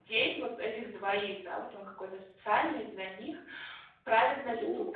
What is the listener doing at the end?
listening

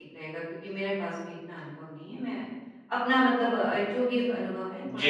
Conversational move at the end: taking over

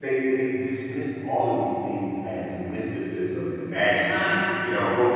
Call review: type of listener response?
listening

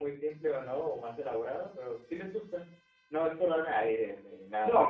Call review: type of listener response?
taking over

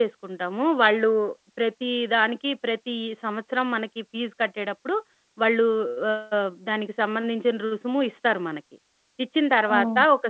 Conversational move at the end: listening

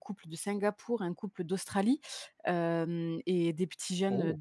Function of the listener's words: listening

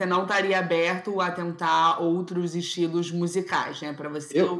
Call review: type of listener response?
listening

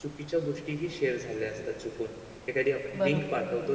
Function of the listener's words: listening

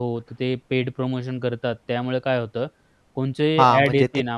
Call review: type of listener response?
taking over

